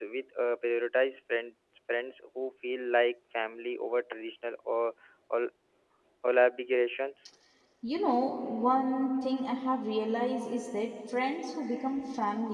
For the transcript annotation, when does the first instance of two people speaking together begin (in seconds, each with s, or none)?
none